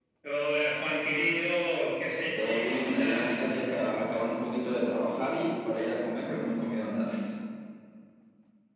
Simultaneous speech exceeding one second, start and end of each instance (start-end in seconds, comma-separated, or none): 2.4-3.6